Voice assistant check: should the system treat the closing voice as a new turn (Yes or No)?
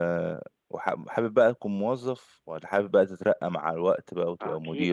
Yes